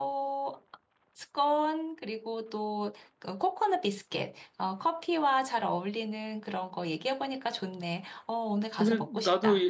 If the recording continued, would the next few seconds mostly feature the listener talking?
Yes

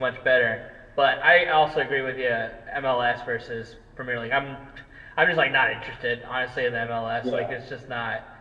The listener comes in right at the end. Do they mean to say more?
No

